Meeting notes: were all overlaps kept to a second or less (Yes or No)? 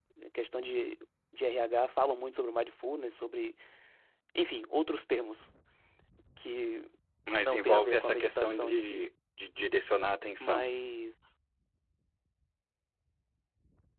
No